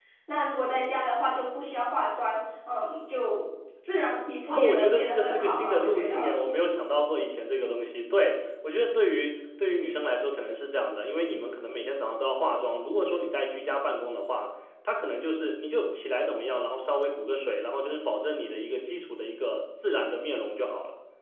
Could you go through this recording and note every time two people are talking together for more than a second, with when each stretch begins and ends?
4.5-6.3

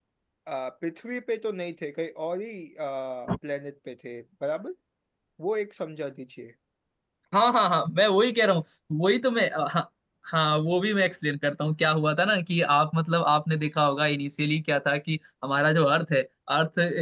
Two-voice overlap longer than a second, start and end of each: none

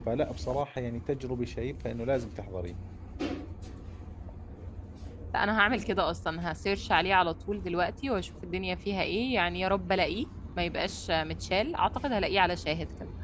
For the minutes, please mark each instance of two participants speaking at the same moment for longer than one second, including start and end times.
none

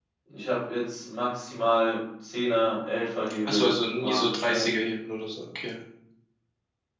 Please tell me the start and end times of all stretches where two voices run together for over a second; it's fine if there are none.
3.4-4.7

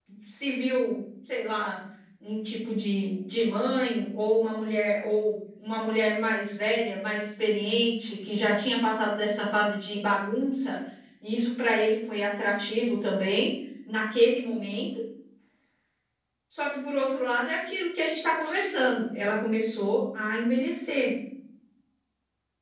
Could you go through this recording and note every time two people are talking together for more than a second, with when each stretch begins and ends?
none

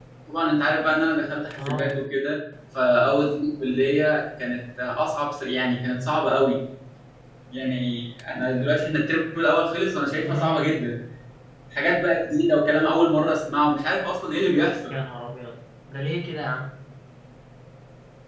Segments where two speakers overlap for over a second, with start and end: none

